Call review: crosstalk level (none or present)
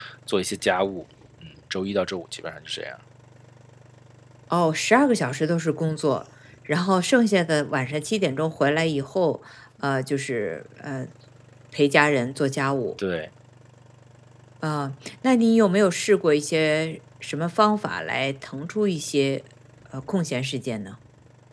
none